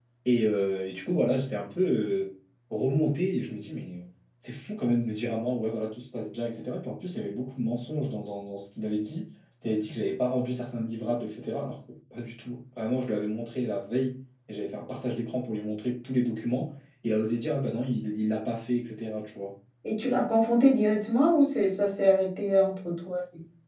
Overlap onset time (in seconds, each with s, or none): none